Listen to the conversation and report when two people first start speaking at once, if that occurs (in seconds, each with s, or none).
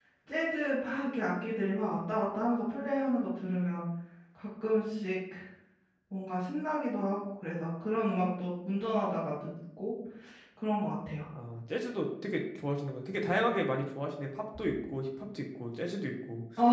none